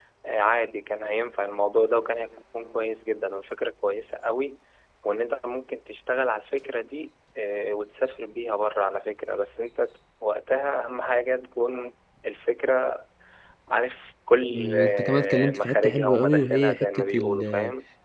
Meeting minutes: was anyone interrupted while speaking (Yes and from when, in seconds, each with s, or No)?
Yes, from 14.5 s